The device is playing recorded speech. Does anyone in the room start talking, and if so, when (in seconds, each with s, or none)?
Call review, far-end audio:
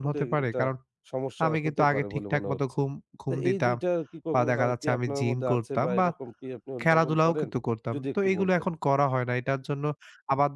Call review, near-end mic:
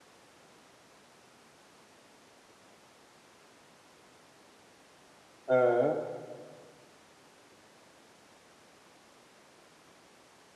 5.5 s